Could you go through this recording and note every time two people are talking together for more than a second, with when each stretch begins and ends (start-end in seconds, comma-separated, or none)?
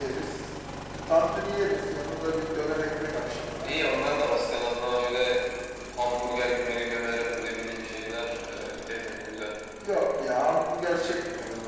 none